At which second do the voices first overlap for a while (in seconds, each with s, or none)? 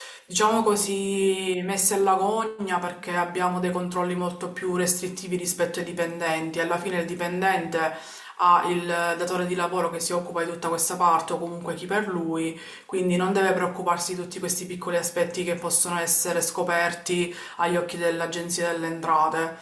none